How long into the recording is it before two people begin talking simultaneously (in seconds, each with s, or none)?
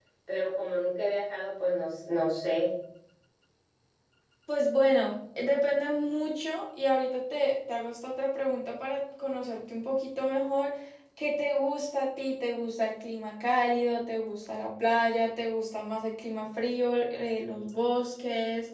none